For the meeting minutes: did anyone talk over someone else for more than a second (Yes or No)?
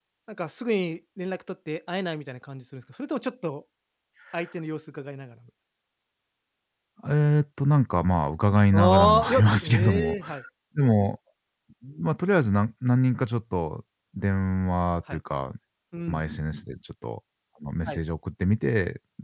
Yes